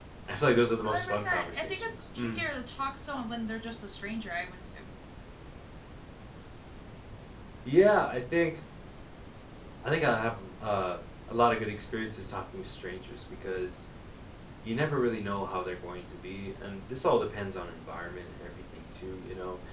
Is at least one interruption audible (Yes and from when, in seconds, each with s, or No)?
Yes, from 0.8 s